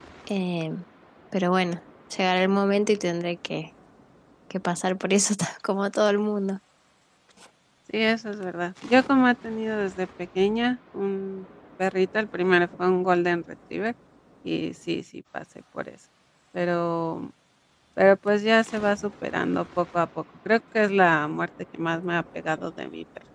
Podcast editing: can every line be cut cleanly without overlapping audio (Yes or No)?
Yes